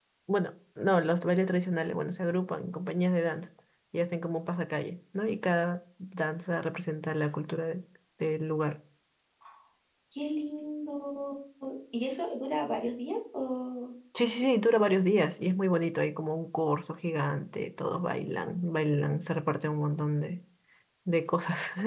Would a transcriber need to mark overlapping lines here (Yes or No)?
No